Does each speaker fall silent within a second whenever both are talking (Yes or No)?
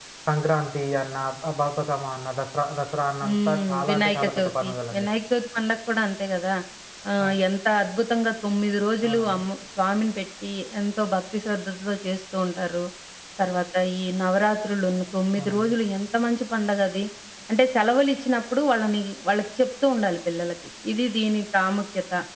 No